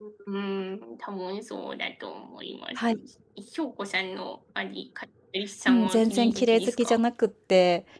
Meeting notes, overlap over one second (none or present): present